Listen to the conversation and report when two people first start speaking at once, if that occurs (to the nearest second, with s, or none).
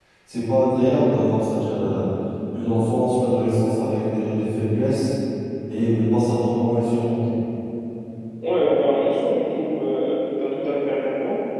none